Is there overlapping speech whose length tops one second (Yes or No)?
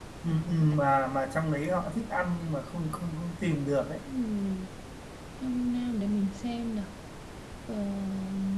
No